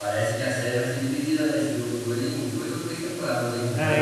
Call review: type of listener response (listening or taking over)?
taking over